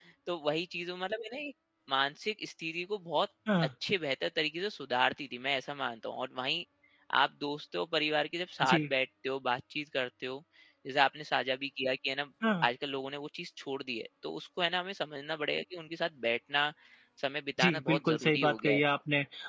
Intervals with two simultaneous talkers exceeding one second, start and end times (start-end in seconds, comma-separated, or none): 17.6-18.8